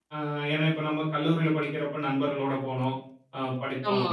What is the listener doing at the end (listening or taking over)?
listening